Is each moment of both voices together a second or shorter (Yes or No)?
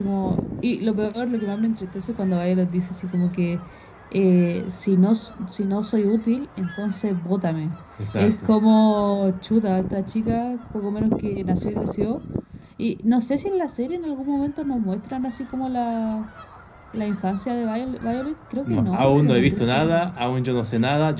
No